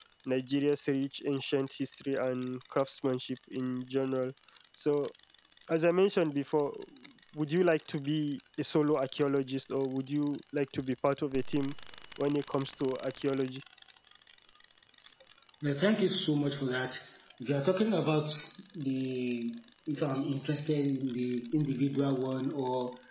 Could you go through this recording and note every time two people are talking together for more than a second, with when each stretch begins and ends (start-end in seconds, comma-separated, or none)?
none